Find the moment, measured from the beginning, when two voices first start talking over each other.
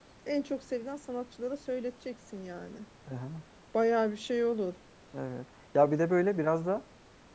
none

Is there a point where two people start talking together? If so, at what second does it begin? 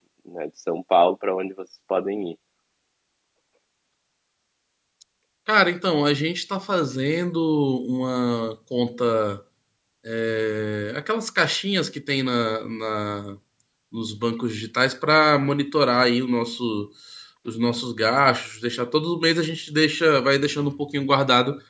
none

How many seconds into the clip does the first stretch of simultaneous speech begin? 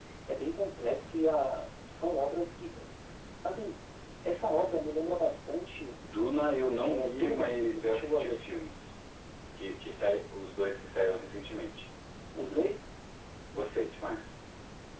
6.8 s

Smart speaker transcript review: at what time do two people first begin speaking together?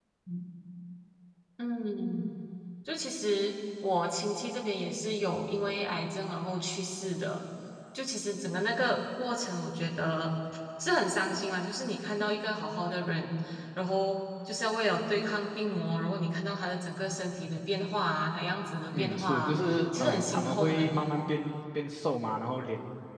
18.9 s

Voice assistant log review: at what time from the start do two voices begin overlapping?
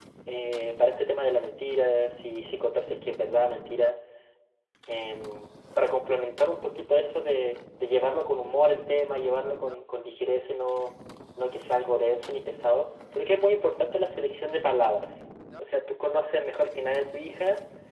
none

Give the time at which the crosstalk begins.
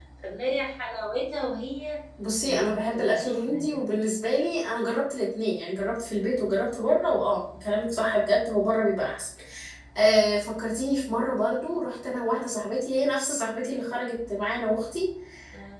2.4 s

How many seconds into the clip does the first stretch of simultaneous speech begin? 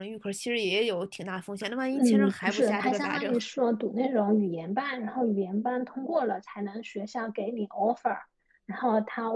1.9 s

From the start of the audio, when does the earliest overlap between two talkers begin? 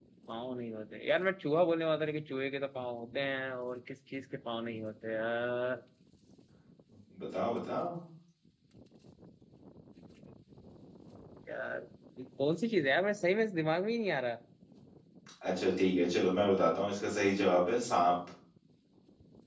none

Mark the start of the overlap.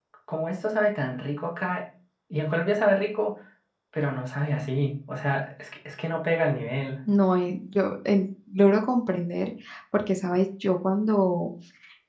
none

